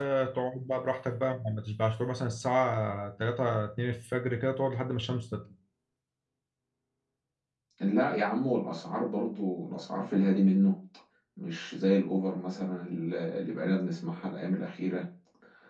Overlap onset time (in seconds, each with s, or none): none